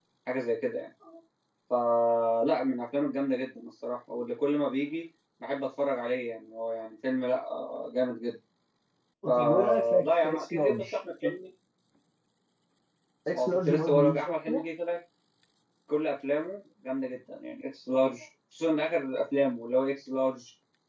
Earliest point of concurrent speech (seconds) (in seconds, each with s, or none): 9.4 s